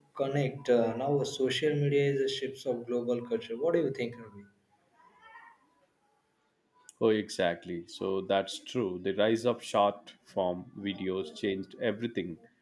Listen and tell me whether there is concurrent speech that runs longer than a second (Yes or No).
No